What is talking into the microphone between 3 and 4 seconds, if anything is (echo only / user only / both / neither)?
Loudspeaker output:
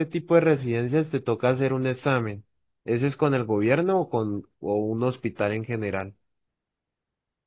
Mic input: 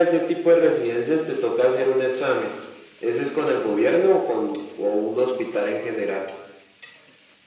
echo only